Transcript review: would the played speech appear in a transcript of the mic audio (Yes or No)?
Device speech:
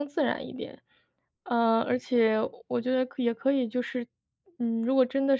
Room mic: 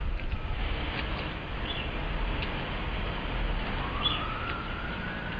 No